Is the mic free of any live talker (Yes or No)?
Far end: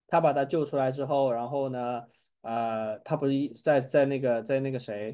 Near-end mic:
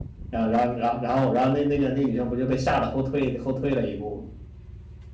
No